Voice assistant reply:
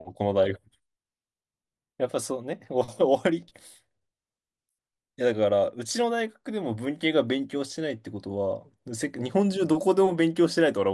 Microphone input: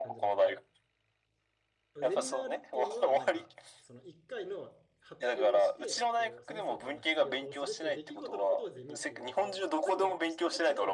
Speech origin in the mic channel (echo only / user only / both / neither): both